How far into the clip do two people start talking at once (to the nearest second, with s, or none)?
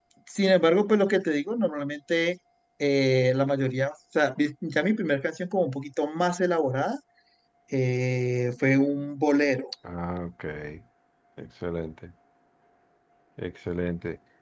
none